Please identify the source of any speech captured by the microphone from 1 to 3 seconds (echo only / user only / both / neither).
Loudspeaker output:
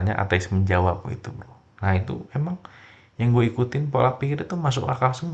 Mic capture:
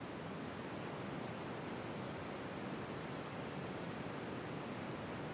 neither